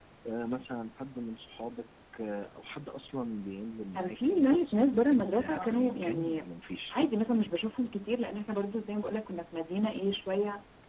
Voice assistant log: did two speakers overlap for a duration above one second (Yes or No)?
Yes